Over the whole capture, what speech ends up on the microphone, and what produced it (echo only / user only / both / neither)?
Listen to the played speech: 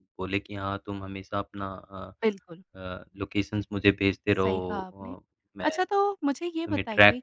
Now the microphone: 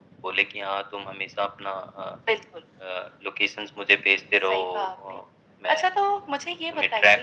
echo only